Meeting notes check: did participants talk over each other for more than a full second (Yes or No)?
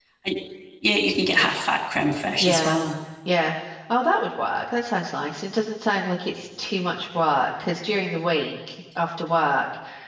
No